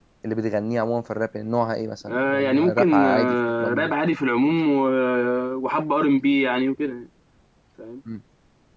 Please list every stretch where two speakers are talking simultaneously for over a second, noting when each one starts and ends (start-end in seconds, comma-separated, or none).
2.1-3.9